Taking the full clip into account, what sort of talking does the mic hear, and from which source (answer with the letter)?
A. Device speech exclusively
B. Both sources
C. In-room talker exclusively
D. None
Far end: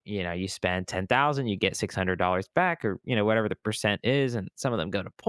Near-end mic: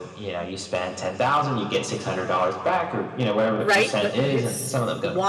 B